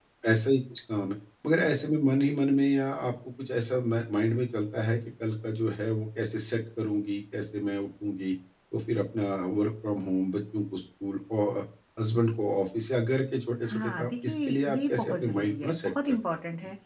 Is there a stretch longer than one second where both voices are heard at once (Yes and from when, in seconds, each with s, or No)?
Yes, from 13.6 s